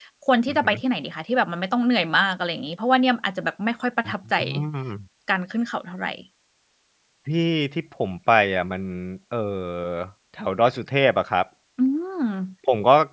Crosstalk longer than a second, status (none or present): none